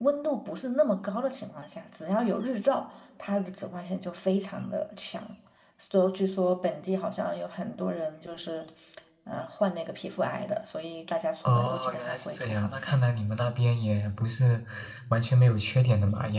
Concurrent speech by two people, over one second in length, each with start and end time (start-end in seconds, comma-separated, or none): 11.4-13.0